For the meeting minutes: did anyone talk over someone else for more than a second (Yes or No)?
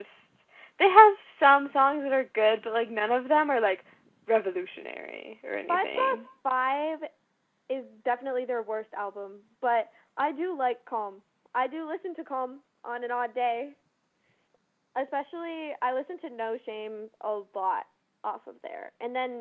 No